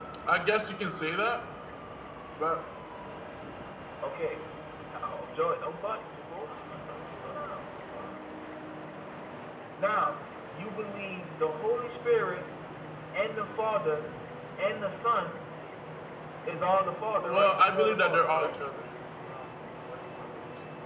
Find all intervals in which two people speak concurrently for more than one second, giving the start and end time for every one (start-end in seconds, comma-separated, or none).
17.2-18.5